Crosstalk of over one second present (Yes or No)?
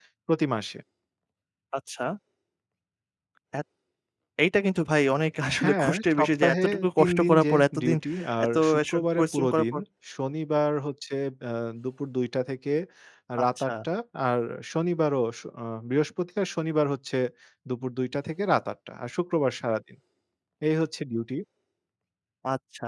Yes